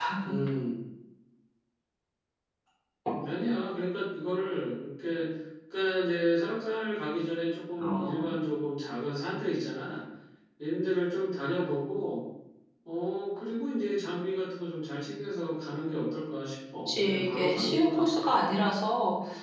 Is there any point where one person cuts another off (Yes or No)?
Yes